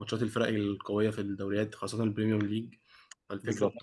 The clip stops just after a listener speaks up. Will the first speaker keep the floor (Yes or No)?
Yes